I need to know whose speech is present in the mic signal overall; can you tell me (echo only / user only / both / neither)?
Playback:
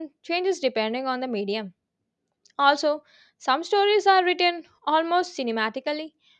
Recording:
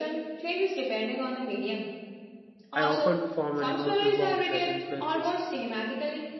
both